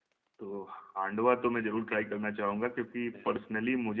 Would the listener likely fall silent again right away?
Yes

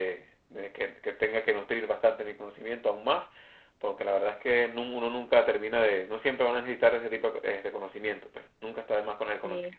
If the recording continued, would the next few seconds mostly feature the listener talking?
Yes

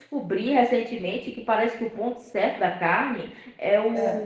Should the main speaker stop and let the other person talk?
No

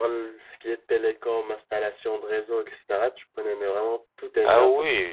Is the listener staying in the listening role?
No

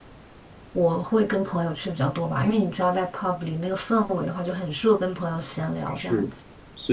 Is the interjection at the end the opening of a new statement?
Yes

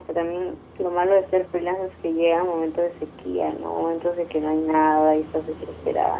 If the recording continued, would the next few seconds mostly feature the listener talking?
No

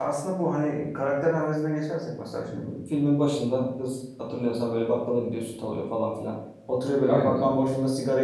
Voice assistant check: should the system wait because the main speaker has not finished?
Yes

